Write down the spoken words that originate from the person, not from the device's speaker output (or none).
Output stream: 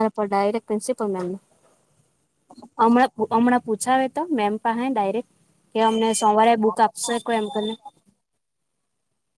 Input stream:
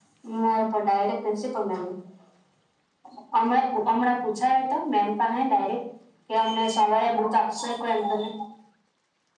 none